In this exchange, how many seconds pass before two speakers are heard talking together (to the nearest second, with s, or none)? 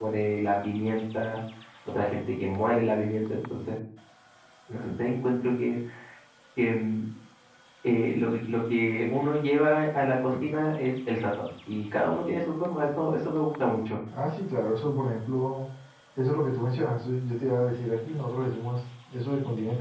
none